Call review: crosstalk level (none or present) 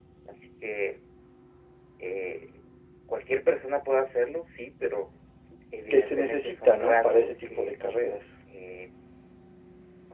present